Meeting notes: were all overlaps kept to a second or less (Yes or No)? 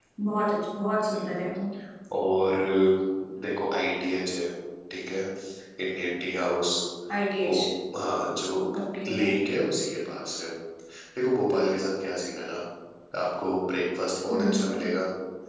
Yes